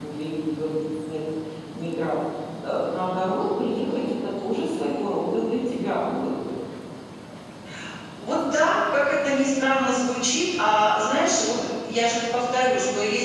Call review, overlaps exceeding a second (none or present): none